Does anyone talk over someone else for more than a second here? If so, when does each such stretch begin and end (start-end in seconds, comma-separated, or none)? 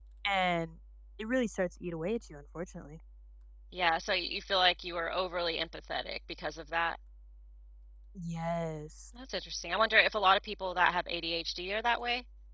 none